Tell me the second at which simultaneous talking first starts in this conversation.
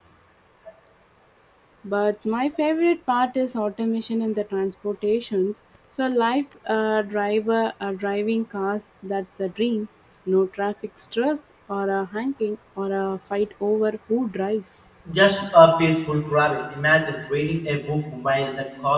none

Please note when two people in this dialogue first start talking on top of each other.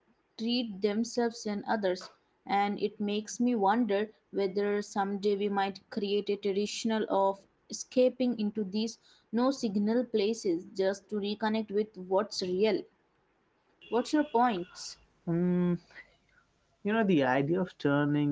none

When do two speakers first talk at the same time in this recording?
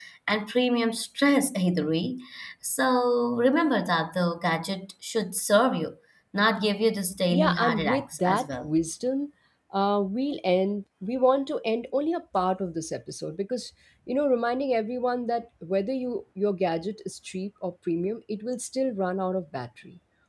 7.3 s

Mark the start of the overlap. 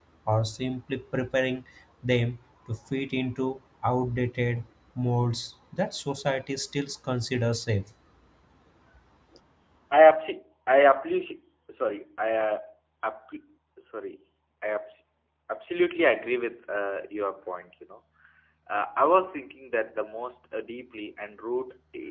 none

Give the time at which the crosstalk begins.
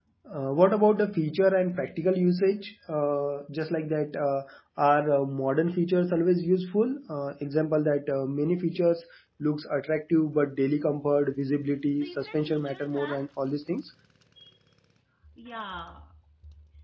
12.0 s

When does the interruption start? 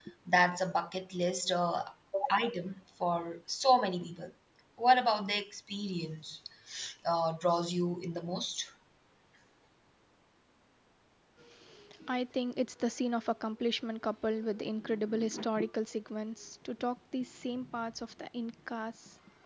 none

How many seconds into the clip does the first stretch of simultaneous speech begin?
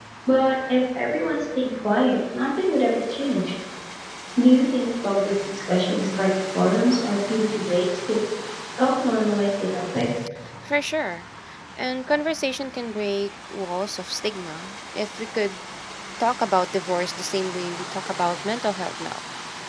none

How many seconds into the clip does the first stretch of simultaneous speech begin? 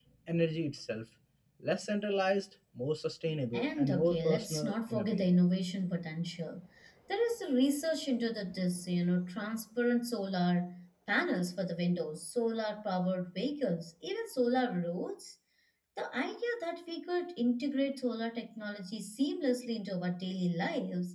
3.5 s

